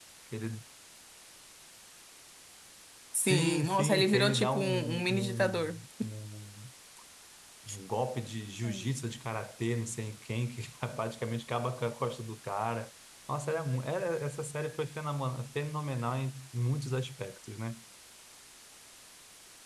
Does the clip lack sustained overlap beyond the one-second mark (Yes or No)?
No